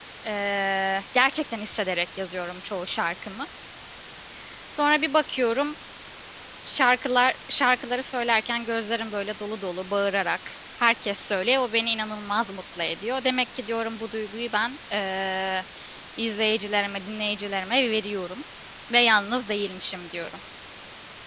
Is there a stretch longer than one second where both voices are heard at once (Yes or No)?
No